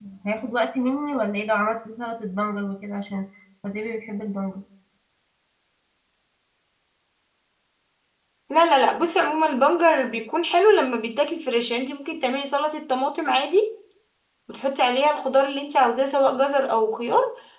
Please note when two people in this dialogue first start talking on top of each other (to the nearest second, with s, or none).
none